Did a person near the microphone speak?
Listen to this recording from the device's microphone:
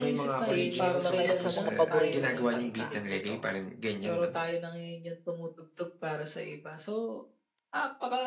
Yes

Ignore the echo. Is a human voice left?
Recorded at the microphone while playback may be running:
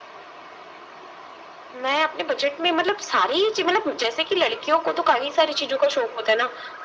No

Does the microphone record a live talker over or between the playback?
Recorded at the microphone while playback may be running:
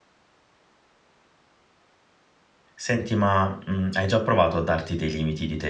Yes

